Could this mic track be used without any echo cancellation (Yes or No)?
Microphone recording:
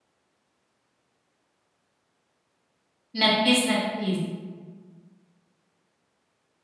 Yes